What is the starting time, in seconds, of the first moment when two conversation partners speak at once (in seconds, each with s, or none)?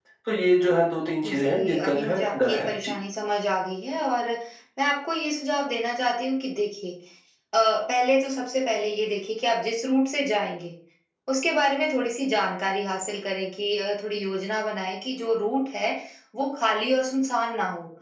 1.2 s